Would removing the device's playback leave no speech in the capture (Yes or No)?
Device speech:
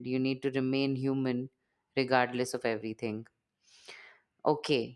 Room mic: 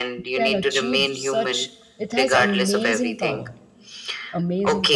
No